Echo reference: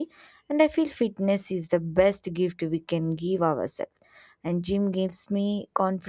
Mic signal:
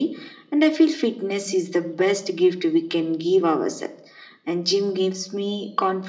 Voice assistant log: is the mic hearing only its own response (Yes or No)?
Yes